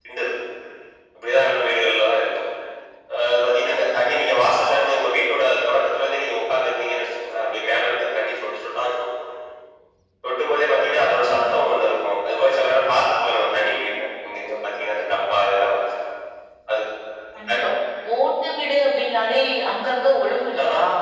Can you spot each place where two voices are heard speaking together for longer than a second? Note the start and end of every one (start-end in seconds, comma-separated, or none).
none